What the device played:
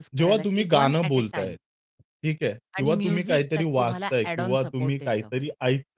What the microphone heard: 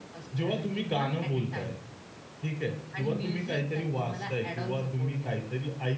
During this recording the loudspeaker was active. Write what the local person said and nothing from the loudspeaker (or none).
none